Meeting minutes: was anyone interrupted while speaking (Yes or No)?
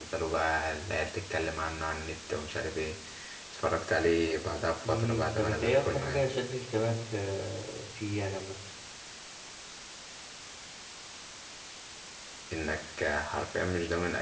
Yes